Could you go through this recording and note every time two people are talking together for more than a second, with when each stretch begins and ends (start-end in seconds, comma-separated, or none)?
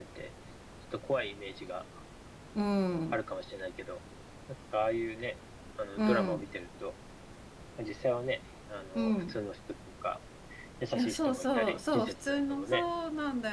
11.0-12.9